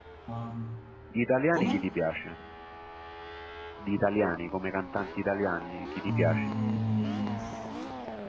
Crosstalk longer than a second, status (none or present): none